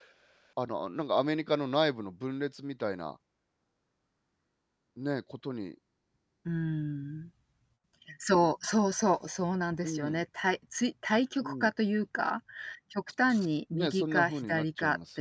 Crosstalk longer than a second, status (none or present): present